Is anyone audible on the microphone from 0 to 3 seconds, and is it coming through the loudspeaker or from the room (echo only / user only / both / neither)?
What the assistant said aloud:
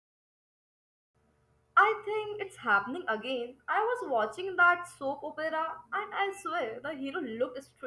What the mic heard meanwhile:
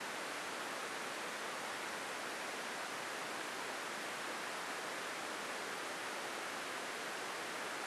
neither